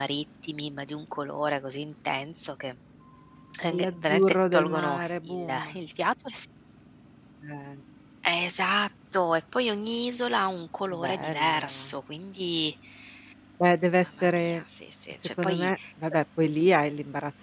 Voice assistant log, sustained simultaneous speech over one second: present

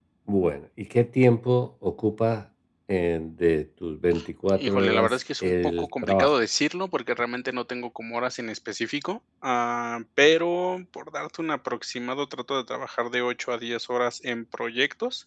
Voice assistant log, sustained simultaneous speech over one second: present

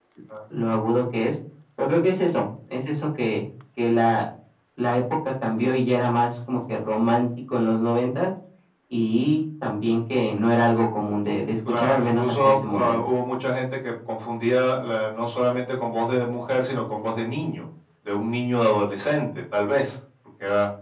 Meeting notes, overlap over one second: present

